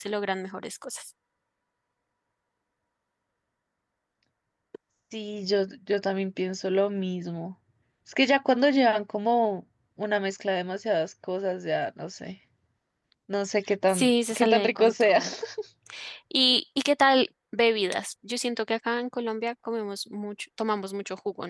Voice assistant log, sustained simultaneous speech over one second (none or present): present